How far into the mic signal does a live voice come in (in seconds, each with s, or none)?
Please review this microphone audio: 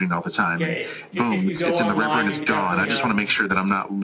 0.6 s